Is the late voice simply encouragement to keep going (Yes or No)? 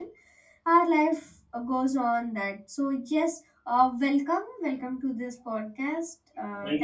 No